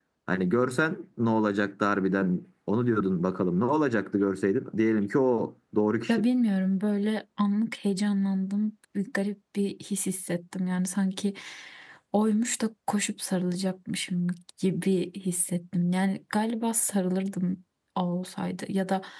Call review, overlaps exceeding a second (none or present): none